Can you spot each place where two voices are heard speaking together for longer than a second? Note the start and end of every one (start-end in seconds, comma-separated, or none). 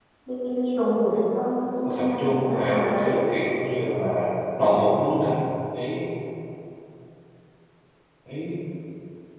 1.8-3.2